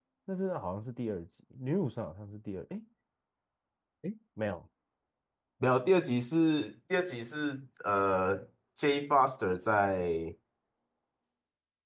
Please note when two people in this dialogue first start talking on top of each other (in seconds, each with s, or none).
none